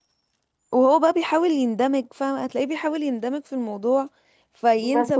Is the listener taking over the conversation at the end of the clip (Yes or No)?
Yes